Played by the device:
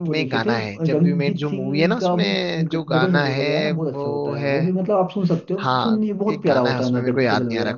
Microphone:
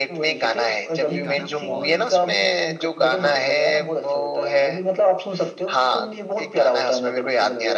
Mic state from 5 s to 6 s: echo only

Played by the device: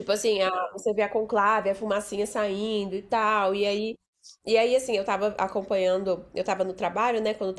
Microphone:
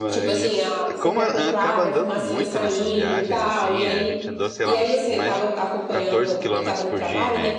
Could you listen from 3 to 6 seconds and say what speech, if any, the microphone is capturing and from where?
both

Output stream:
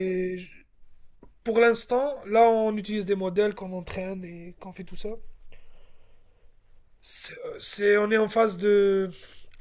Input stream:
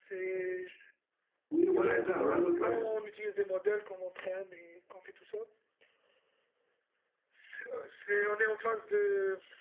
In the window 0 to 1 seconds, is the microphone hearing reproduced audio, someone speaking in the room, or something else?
echo only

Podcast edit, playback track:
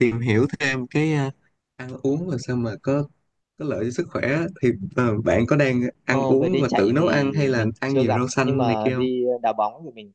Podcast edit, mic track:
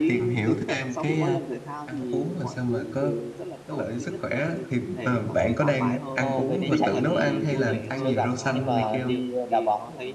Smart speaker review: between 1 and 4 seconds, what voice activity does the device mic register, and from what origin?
both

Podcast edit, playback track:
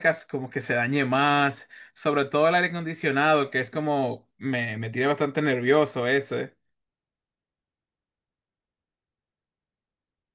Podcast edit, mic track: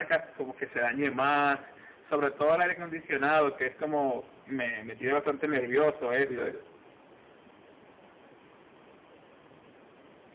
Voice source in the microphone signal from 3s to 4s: echo only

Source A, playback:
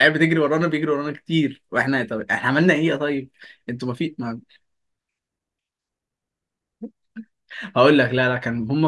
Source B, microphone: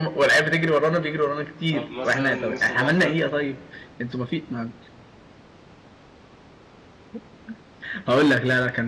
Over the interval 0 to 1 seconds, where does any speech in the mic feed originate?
echo only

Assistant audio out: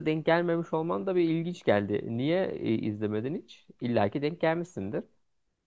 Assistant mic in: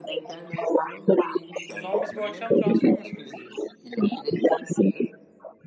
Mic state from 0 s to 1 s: echo only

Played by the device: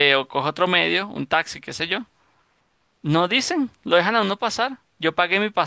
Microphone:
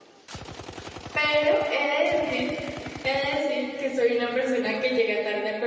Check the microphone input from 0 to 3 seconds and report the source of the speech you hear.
user only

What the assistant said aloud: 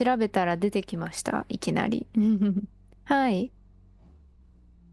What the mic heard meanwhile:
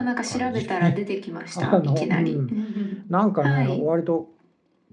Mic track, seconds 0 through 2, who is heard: both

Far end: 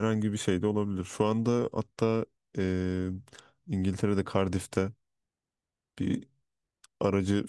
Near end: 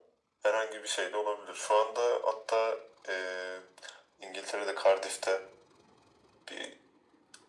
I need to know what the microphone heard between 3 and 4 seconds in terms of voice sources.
echo only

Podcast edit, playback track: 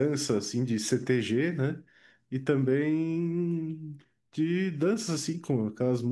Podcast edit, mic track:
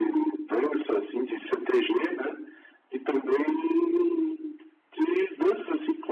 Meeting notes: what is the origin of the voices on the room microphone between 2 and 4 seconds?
echo only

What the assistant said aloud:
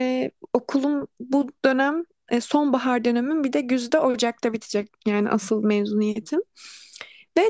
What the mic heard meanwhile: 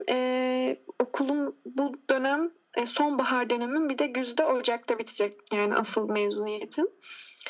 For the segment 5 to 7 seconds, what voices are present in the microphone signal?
echo only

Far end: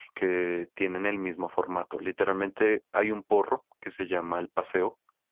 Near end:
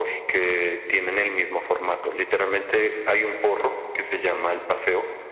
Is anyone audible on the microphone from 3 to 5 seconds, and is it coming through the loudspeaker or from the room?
echo only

